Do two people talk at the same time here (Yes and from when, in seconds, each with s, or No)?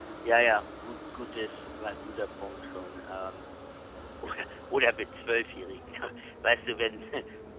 No